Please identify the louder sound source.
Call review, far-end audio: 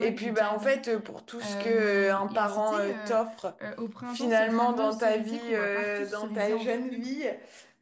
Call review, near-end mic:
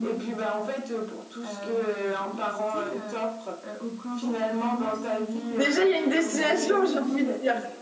user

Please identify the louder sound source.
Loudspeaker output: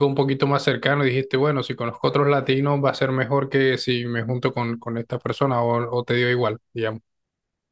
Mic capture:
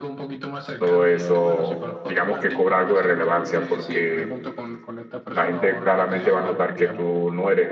user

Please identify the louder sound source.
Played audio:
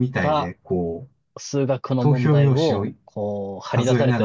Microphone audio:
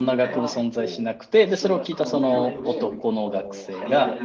user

